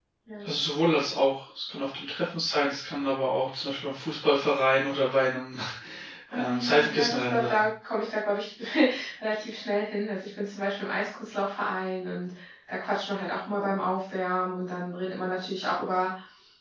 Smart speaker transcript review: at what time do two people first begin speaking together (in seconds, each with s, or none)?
6.3 s